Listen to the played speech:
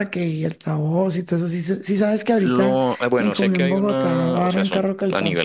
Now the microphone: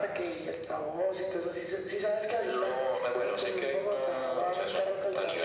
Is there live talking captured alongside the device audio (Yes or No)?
No